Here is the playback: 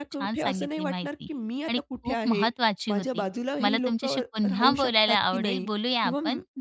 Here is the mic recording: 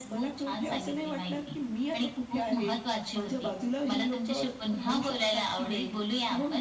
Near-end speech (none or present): none